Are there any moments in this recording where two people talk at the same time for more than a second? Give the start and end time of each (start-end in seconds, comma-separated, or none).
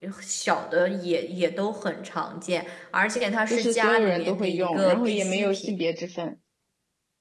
3.5-5.7